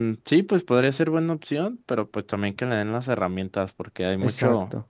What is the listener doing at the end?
listening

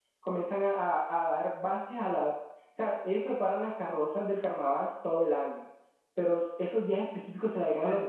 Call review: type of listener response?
listening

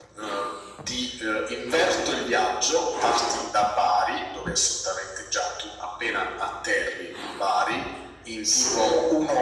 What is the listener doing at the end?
listening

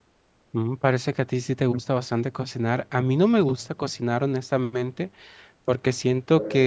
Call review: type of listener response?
listening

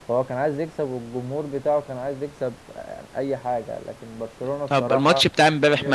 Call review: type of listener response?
taking over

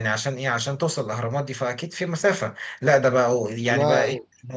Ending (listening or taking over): listening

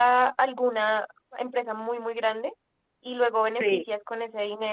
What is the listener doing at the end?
listening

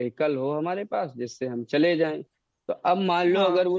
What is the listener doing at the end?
listening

